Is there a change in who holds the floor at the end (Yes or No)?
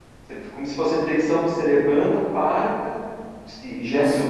Yes